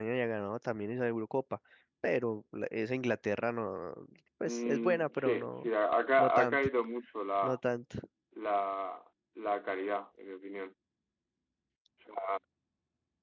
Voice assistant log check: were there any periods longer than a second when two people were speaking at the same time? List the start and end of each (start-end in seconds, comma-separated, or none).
4.5-5.7